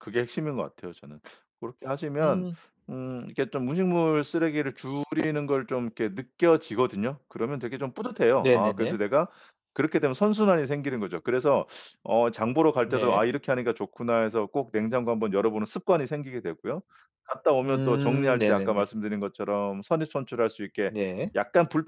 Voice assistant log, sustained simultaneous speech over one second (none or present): present